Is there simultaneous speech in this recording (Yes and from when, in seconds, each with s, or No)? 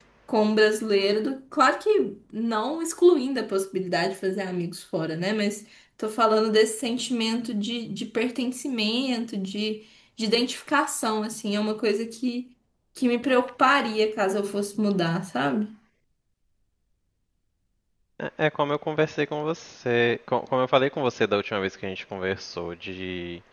No